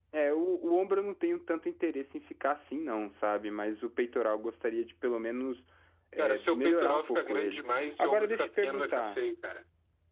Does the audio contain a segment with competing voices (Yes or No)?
Yes